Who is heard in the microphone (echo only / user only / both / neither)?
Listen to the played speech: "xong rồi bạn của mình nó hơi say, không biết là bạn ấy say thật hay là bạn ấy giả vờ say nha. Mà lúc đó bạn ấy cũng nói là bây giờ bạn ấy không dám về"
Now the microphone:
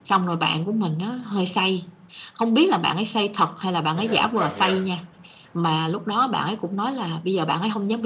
both